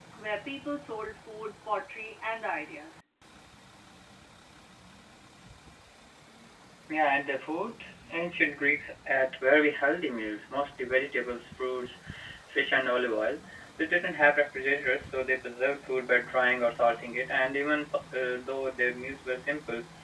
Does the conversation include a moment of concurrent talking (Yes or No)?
No